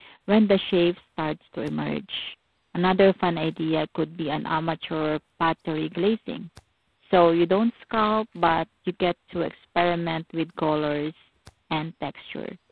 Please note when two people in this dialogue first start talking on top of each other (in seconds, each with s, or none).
none